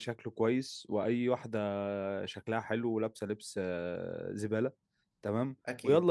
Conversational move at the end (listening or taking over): listening